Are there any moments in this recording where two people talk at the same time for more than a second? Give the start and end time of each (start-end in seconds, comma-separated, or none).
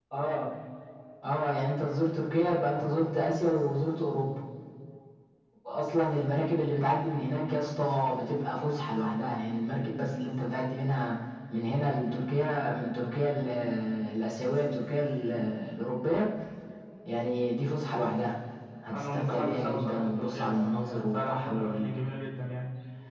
18.9-21.9